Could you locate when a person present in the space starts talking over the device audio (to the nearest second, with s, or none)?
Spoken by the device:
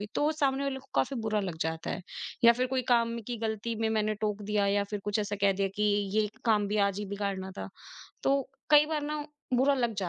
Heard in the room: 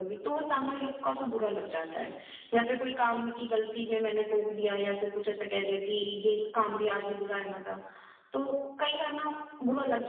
none